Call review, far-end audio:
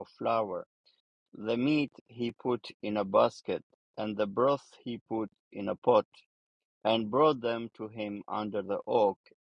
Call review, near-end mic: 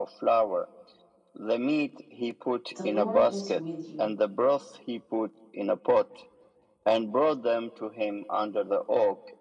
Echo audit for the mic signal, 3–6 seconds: both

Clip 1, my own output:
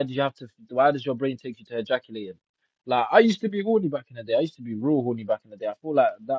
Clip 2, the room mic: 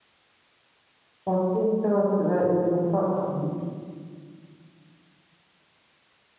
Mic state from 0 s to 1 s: neither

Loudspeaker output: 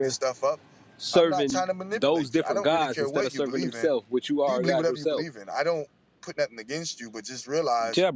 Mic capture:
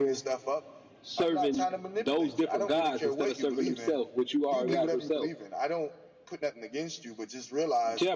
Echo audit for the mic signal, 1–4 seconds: echo only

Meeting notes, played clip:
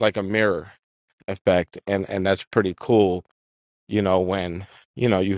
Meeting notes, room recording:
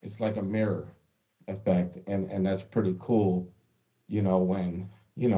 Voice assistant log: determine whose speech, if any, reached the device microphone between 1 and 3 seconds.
echo only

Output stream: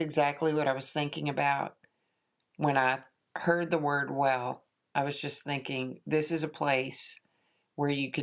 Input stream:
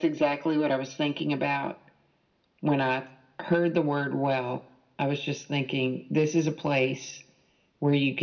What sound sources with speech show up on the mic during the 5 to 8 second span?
echo only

